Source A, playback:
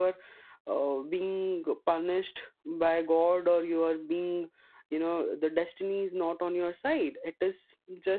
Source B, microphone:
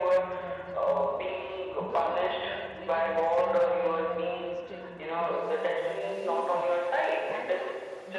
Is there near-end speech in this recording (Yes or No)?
Yes